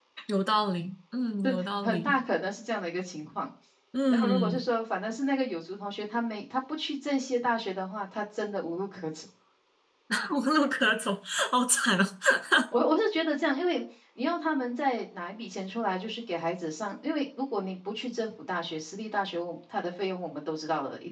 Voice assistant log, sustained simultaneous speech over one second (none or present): none